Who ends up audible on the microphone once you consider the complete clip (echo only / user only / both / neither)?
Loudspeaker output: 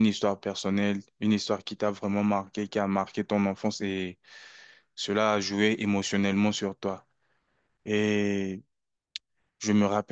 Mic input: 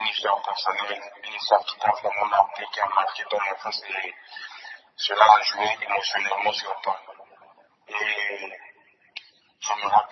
echo only